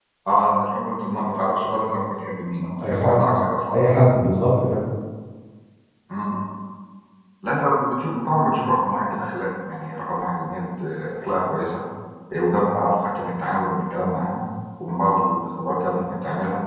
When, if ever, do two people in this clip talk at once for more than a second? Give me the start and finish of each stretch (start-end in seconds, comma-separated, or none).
none